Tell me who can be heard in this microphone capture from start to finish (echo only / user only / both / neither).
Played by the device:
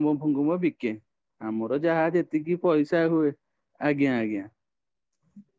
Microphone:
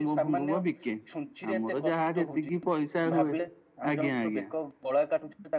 both